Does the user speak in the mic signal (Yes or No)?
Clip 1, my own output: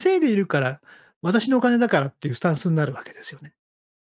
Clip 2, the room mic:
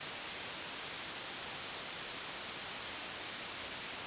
No